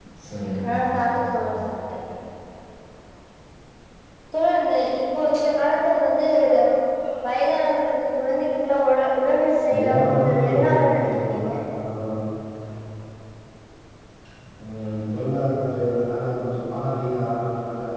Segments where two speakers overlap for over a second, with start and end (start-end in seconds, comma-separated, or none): 9.6-11.3